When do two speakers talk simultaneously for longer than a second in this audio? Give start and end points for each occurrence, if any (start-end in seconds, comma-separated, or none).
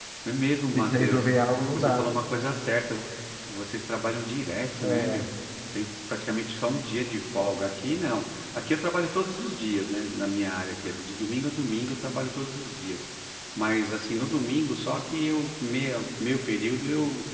none